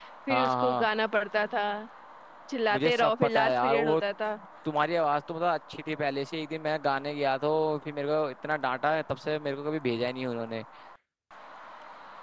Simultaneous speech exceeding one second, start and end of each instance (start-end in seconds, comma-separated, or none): 2.7-4.0